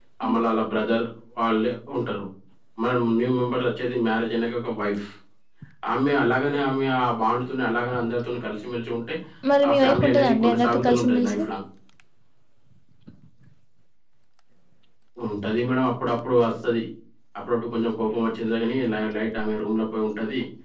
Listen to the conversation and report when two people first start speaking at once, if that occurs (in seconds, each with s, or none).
9.7 s